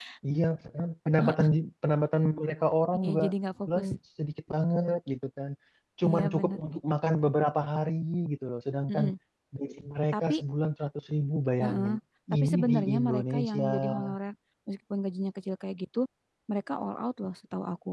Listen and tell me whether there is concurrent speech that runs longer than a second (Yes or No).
Yes